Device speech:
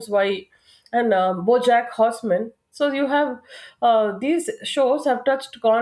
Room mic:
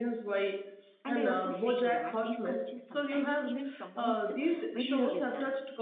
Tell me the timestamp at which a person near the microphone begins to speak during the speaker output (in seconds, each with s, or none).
1.0 s